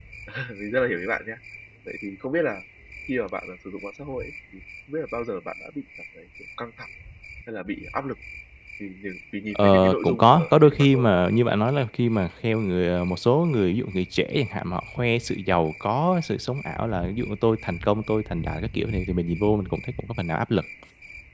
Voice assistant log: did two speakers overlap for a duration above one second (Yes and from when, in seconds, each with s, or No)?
Yes, from 9.5 s